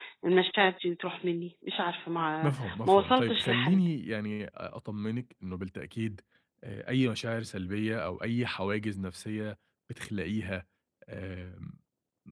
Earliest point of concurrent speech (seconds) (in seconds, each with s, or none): 2.4 s